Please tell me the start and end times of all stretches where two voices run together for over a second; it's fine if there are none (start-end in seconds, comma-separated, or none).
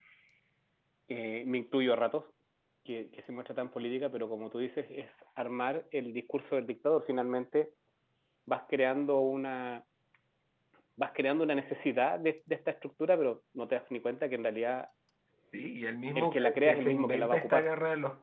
16.1-17.7